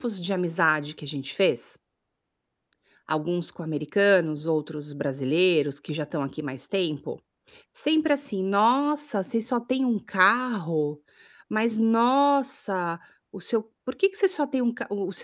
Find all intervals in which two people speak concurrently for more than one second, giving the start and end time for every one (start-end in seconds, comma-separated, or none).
none